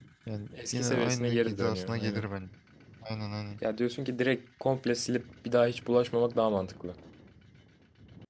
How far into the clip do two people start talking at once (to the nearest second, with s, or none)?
1 s